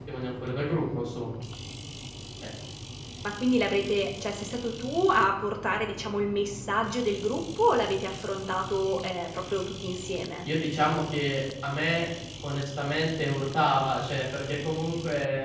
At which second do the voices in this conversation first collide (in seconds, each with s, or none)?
none